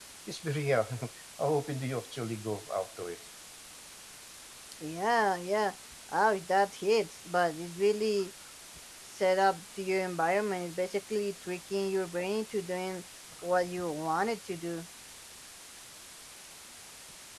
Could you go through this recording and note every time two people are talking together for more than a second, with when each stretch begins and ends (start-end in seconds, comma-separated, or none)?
none